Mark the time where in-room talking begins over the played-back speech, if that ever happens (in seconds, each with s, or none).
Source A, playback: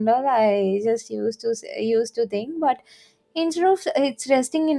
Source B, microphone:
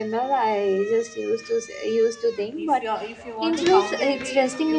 2.5 s